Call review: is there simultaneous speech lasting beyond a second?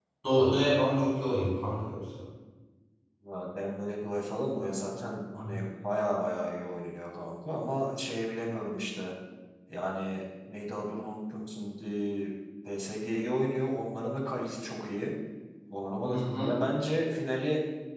No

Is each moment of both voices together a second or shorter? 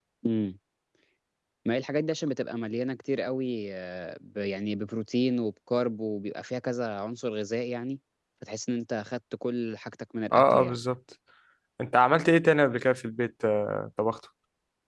Yes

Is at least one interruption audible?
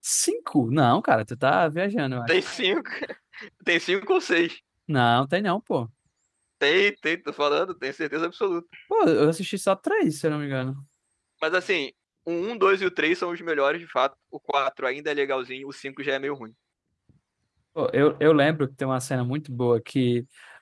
No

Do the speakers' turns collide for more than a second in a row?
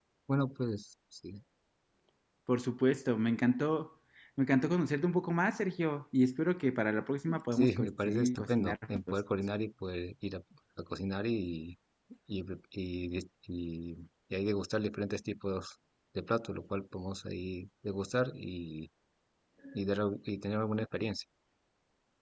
Yes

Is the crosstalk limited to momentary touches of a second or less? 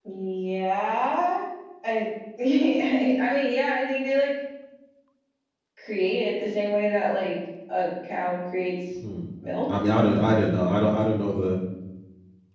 Yes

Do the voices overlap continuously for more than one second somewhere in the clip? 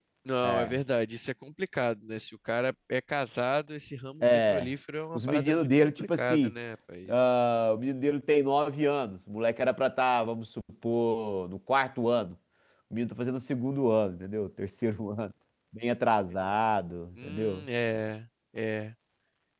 Yes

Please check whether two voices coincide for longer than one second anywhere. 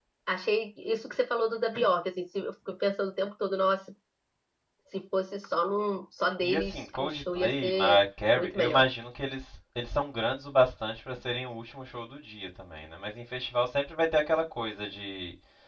Yes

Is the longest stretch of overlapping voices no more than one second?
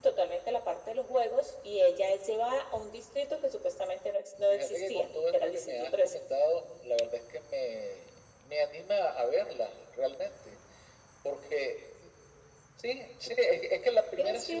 No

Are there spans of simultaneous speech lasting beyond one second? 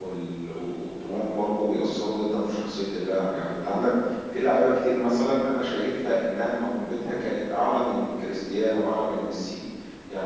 No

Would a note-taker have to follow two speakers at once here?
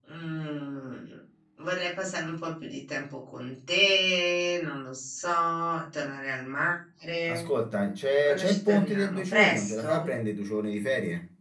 Yes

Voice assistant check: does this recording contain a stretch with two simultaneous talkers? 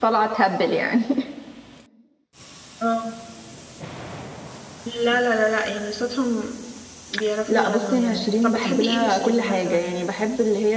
Yes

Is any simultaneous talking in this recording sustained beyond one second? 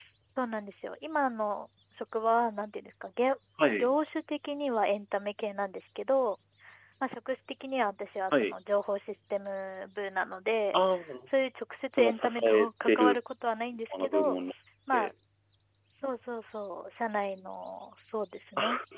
Yes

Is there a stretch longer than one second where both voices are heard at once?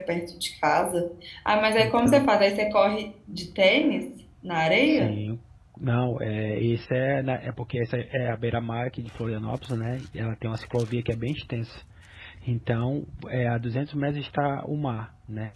No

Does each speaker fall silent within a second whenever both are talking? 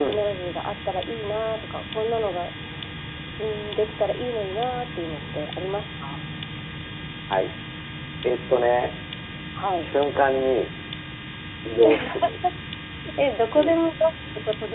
Yes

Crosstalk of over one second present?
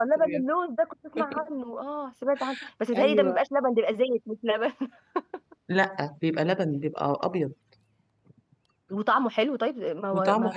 No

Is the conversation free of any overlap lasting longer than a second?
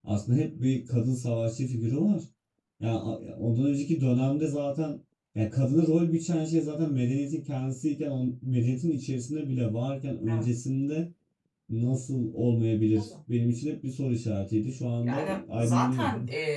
No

